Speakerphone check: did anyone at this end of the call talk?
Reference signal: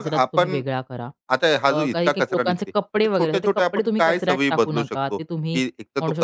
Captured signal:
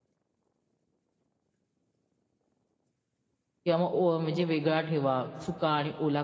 Yes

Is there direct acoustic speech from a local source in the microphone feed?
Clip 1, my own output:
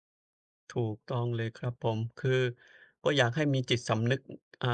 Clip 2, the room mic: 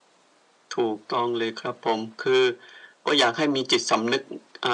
No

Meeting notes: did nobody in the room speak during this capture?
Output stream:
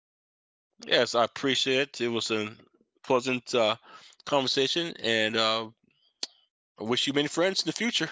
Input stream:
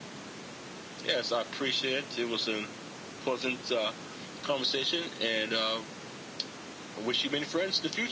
Yes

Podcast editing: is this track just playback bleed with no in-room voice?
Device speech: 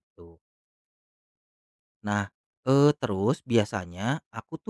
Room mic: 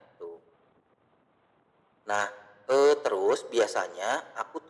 Yes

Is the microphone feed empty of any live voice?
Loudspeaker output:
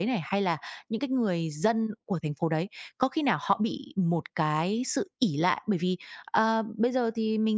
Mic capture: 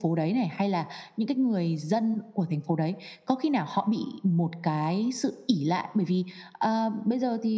Yes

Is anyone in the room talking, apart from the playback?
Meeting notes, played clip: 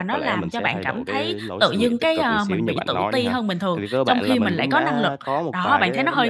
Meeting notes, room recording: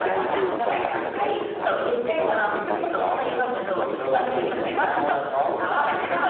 Yes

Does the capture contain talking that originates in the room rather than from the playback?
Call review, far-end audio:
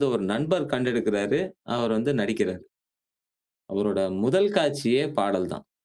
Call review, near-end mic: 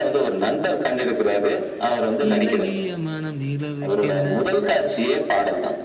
Yes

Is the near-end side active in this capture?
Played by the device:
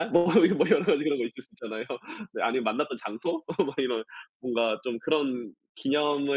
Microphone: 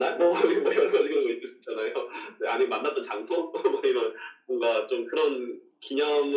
No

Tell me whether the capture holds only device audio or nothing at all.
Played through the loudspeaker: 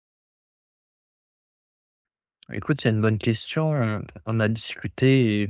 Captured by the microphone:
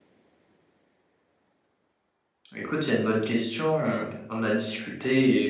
Yes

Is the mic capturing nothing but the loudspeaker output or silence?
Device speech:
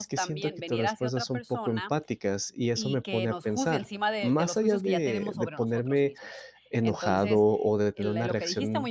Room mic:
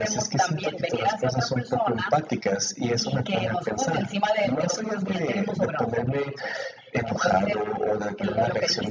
Yes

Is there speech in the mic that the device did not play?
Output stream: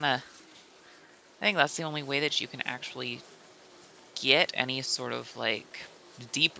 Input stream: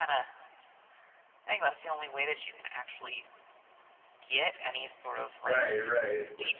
Yes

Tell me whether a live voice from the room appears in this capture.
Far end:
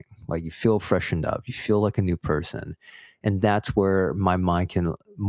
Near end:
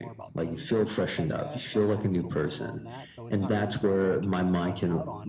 Yes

